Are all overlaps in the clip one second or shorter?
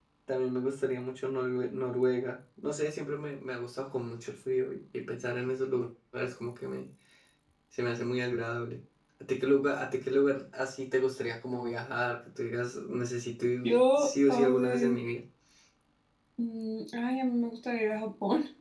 No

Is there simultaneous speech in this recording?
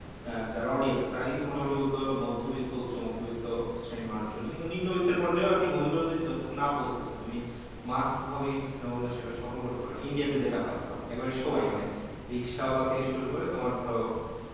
No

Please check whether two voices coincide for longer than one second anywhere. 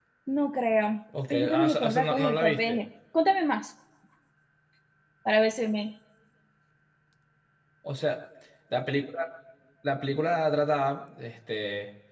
Yes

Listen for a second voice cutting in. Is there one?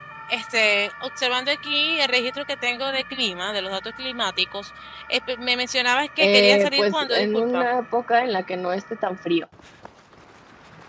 Yes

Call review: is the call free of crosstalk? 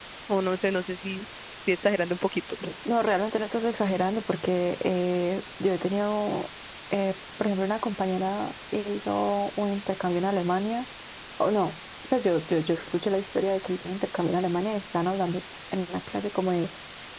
Yes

